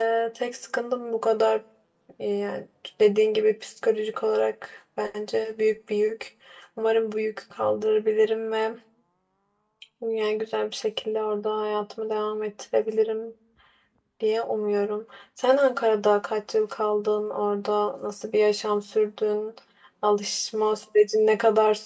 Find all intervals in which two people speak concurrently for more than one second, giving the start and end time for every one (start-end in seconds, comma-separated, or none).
none